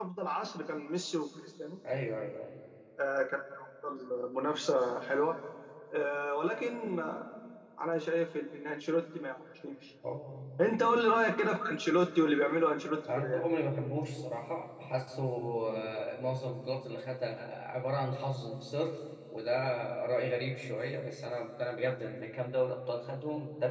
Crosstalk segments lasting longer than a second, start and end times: none

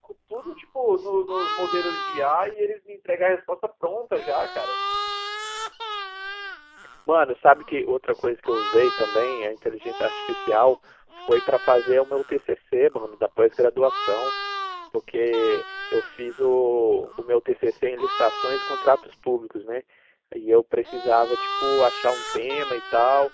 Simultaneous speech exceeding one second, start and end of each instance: none

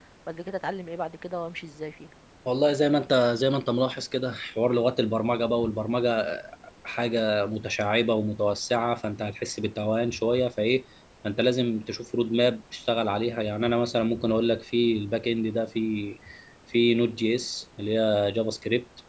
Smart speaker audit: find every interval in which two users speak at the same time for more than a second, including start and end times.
none

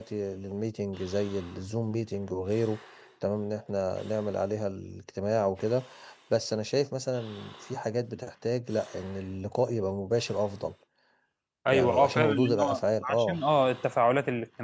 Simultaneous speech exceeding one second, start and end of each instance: 11.7-13.4

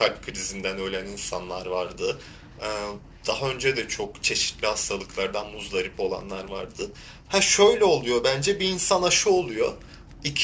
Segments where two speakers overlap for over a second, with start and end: none

